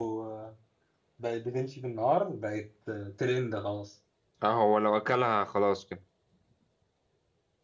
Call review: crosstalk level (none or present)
none